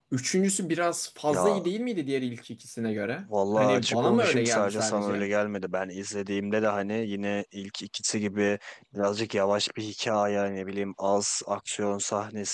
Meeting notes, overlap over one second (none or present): present